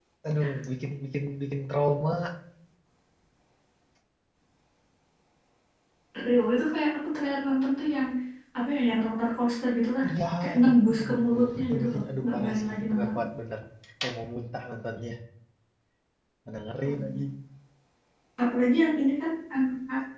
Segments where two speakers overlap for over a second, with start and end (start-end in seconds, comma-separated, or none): 10.4-13.1